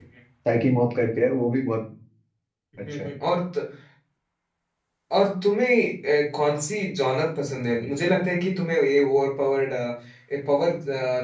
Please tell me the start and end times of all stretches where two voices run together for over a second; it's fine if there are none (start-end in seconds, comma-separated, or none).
none